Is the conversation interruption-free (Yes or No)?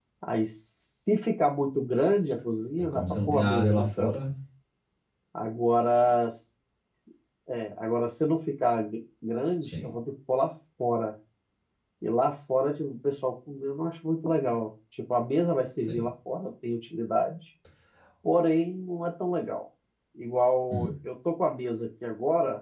No